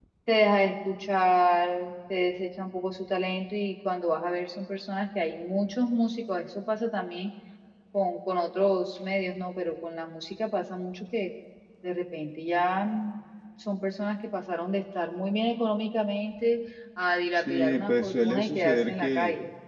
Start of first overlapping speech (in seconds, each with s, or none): 17.4 s